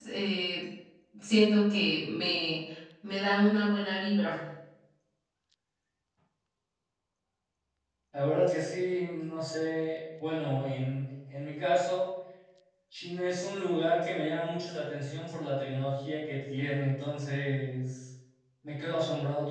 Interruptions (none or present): none